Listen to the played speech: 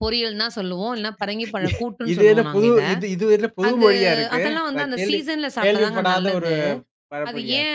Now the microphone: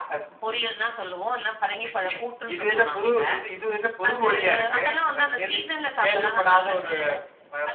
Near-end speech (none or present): none